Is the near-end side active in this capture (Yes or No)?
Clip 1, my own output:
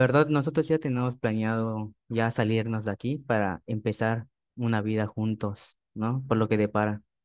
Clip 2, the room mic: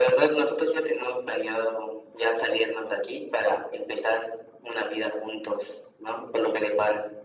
No